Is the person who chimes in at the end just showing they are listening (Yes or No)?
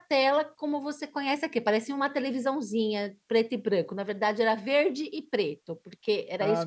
No